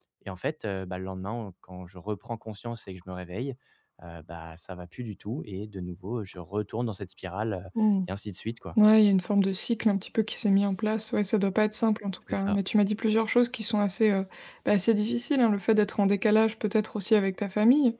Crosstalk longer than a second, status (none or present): none